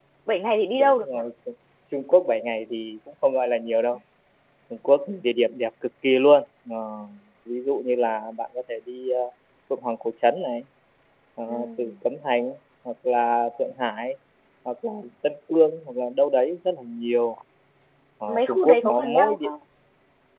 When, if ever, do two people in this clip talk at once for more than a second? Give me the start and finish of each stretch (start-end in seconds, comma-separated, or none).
18.3-19.5